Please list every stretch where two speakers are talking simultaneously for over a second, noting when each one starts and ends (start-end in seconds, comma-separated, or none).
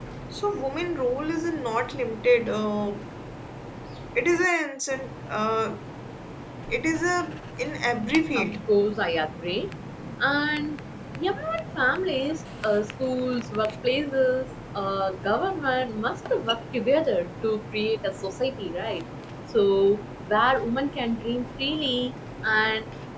none